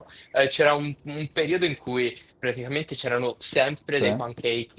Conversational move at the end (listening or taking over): listening